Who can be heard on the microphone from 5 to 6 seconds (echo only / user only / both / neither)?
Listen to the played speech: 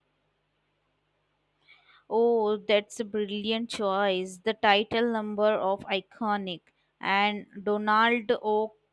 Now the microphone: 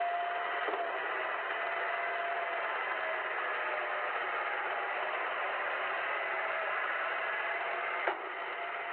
neither